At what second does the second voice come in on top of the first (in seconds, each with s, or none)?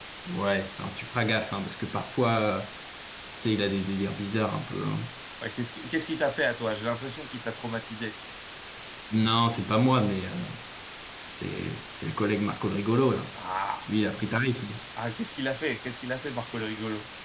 none